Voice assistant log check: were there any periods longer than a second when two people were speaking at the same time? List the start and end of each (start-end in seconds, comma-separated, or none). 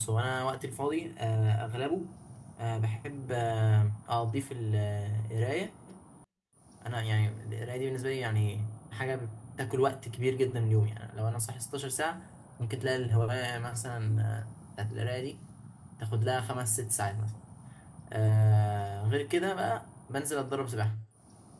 none